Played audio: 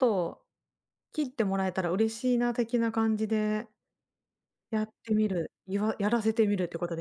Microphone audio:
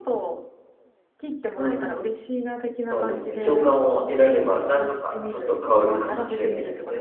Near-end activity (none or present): present